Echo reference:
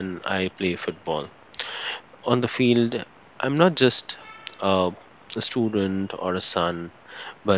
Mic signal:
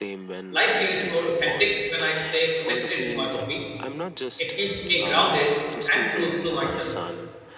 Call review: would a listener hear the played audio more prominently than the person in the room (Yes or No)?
No